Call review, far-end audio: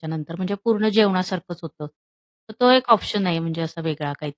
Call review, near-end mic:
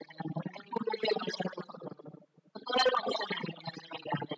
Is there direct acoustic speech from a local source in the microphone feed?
No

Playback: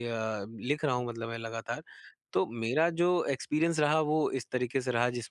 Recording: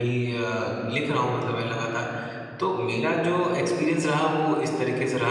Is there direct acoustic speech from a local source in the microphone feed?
No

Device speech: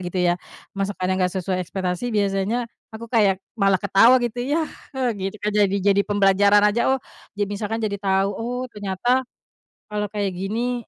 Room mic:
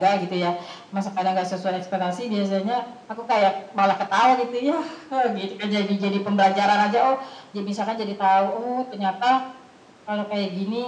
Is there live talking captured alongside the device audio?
No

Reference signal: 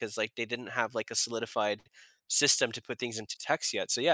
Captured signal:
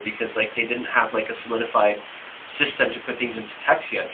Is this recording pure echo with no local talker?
Yes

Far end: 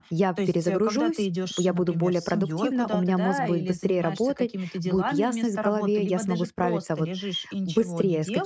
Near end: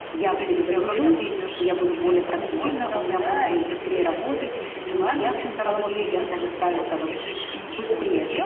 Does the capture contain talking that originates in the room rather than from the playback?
No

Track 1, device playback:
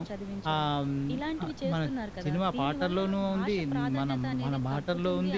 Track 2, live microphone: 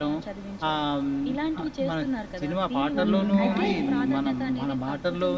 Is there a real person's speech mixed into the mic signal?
Yes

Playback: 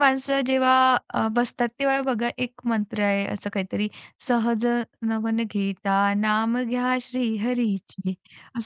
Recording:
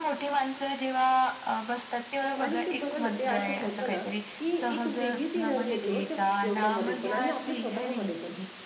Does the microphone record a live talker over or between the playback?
Yes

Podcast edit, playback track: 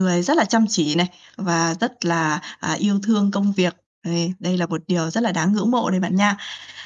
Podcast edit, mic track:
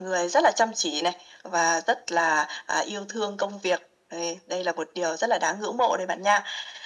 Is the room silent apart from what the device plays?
Yes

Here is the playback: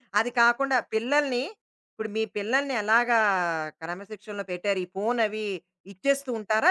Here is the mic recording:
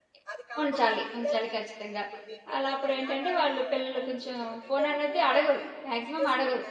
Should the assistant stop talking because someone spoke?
Yes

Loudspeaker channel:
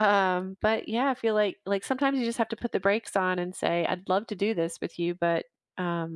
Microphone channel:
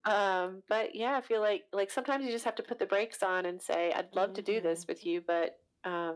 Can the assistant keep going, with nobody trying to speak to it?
No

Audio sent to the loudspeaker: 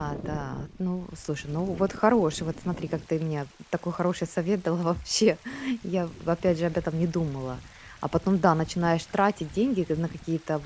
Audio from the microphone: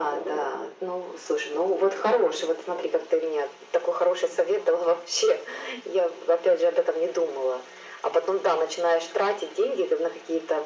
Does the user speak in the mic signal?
No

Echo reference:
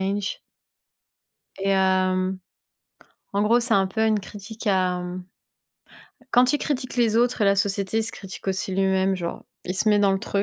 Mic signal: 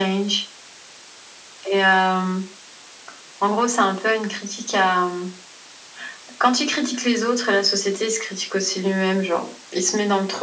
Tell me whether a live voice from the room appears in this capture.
No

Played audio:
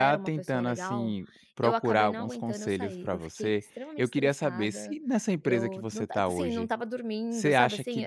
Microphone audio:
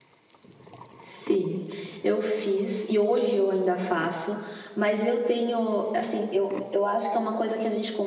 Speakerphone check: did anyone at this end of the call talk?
Yes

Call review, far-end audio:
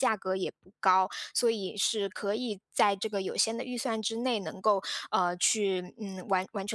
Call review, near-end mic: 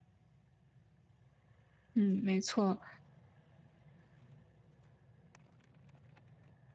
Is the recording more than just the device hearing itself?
Yes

